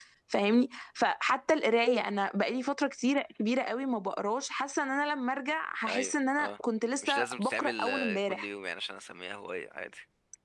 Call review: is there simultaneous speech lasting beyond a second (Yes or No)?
Yes